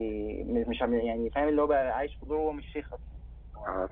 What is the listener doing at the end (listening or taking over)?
taking over